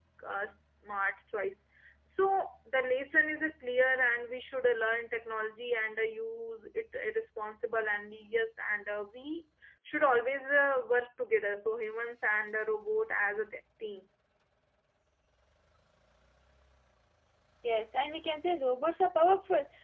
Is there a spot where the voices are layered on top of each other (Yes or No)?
No